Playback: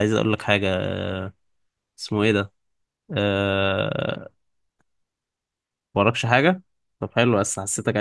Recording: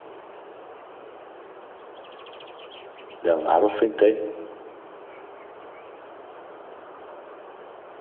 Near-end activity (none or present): present